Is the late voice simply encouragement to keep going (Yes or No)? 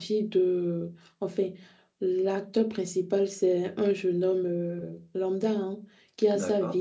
Yes